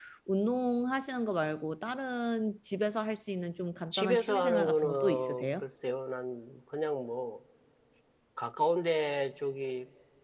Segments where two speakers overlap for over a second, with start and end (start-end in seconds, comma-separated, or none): 3.9-5.6